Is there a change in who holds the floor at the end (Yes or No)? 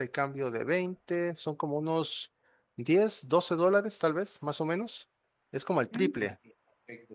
Yes